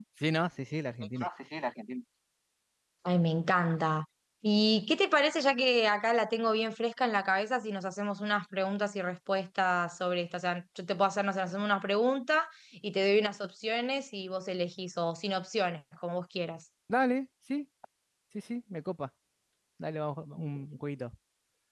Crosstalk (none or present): none